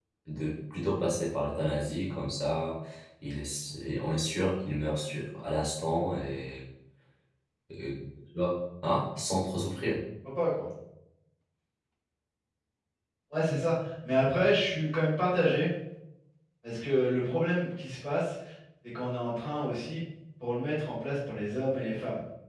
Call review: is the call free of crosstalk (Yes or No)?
Yes